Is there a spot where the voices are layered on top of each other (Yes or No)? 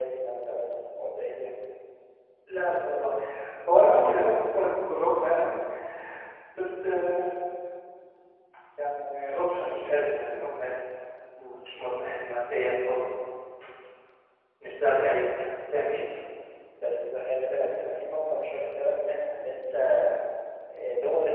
No